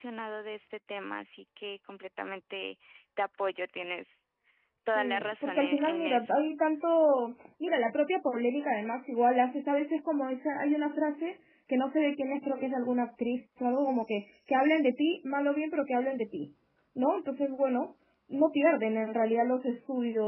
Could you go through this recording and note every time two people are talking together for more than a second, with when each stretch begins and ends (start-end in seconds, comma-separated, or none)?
5.0-6.4